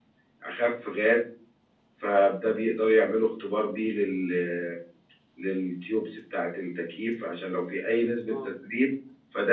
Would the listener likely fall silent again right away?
Yes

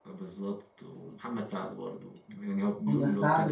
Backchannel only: No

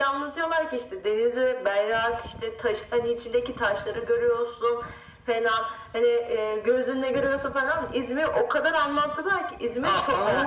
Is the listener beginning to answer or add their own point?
Yes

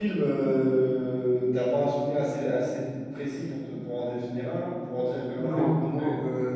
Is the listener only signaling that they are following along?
No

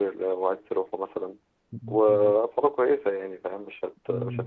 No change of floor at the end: No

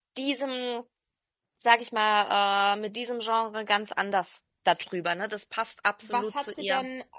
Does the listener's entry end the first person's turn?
Yes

